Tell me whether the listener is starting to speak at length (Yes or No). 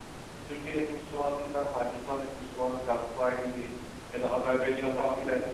No